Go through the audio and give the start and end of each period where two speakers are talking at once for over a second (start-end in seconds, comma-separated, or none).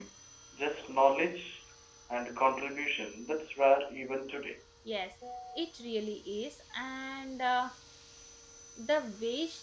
none